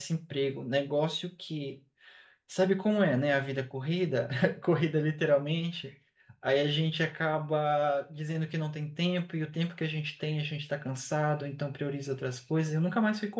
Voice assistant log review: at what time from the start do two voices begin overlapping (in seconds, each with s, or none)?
none